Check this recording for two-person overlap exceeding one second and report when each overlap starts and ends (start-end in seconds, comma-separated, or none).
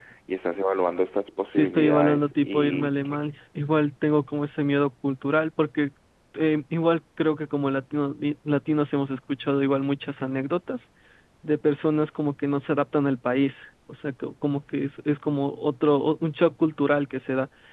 1.5-3.0